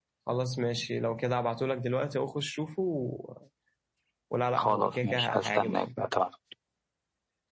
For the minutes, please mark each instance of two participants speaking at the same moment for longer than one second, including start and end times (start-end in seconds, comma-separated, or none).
4.6-5.8